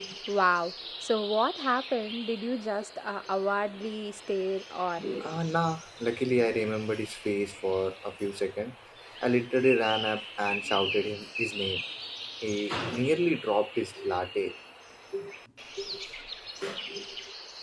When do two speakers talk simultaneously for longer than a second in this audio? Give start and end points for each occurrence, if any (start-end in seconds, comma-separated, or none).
none